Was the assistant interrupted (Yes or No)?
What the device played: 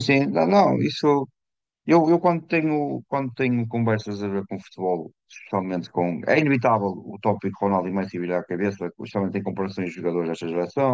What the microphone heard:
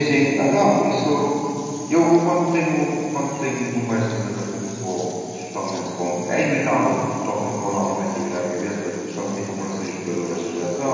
No